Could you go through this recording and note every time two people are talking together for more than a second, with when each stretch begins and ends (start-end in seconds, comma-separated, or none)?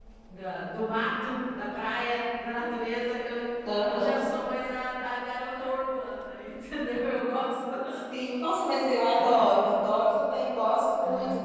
none